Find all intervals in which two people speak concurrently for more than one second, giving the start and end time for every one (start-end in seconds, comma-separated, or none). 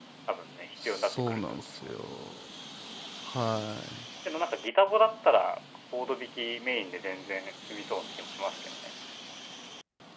0.8-2.0